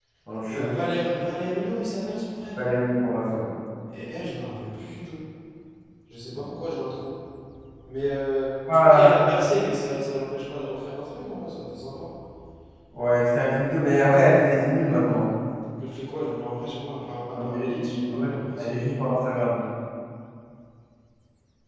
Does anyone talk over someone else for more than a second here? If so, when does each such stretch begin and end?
17.4-19.0

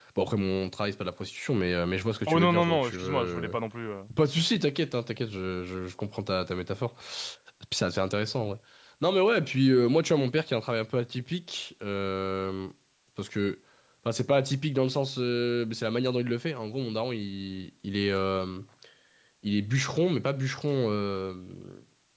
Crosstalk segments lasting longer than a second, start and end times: 2.3-3.6

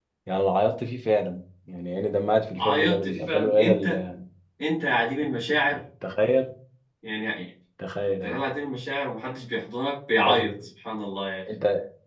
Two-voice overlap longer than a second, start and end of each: 2.6-4.0

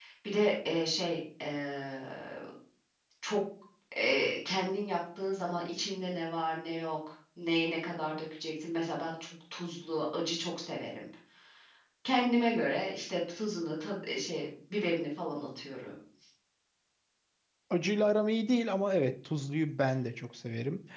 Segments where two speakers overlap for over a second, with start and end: none

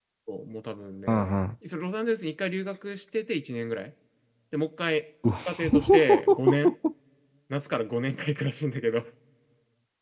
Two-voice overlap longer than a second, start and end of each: 5.5-6.7

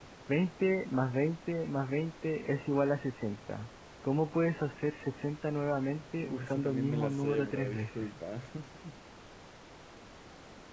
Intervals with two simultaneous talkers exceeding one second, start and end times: 6.2-8.2

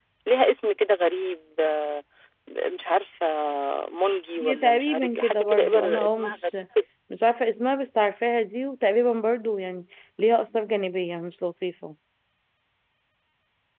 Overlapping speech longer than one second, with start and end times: 4.4-6.5

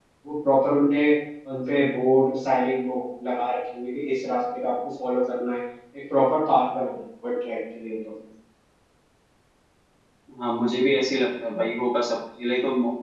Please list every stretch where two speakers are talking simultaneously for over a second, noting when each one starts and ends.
none

